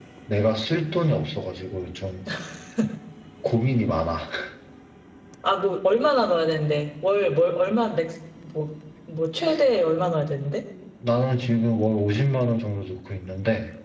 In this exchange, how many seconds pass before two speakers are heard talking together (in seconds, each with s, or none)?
none